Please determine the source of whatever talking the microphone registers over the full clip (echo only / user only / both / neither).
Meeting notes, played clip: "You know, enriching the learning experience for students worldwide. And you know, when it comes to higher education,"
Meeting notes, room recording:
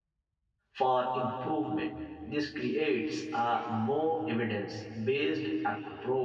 user only